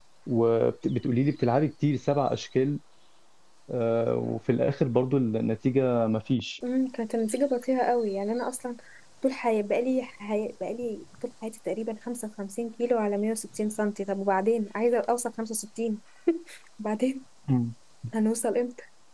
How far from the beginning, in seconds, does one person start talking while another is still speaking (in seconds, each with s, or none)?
none